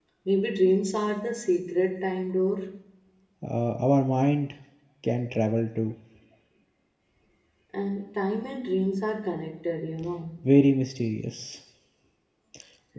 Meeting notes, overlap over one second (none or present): none